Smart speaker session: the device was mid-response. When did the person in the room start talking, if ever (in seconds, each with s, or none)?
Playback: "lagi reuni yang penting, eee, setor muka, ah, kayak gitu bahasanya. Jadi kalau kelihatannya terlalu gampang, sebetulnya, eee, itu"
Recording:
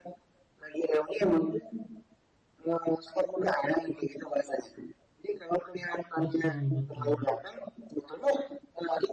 6.2 s